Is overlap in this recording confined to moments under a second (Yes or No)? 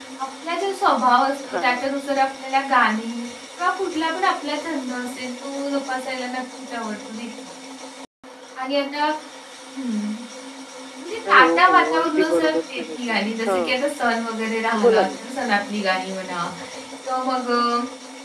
No